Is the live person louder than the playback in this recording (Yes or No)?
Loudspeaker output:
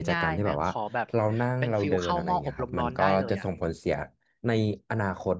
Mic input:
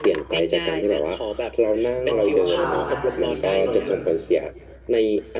No